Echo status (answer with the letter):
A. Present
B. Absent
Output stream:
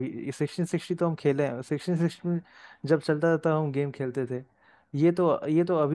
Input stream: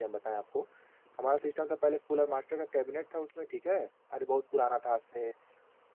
B